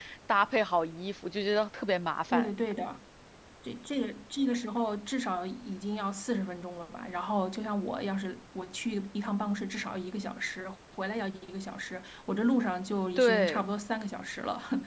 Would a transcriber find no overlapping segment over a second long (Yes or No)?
Yes